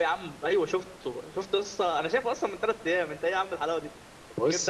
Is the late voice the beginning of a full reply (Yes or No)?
No